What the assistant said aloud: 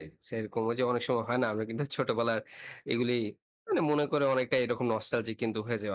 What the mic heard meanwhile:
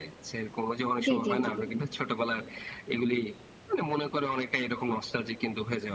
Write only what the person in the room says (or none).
জি, জি, জি।